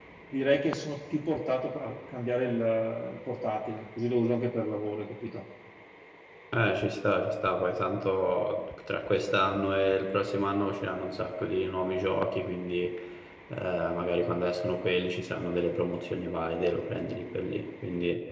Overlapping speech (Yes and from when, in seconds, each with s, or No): No